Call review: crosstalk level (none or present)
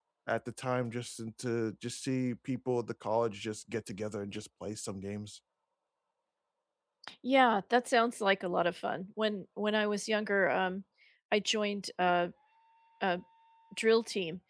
none